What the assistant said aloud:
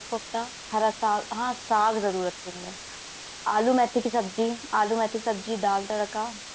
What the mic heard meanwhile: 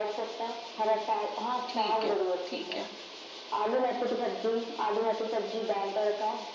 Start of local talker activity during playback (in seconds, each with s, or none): 1.7 s